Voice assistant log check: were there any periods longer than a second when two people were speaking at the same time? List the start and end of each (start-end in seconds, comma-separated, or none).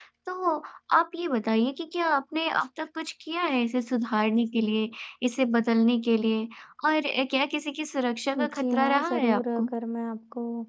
8.4-9.7